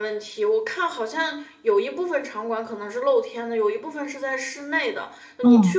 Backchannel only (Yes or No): Yes